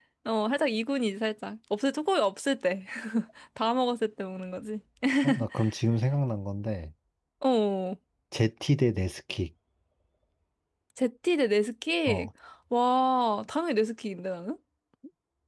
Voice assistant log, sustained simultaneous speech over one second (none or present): none